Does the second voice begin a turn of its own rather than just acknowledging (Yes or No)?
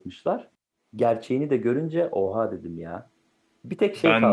No